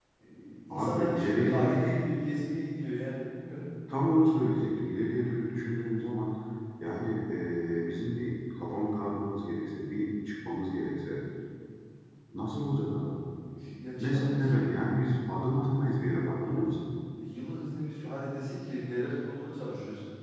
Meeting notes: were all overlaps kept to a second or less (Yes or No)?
No